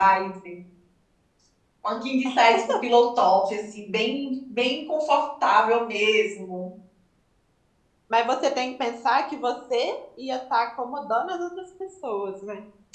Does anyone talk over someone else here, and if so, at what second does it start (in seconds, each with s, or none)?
none